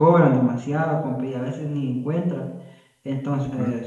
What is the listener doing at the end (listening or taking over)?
listening